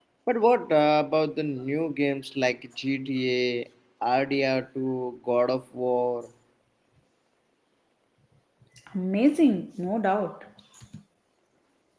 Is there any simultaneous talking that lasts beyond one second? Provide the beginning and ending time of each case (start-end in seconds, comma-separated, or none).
none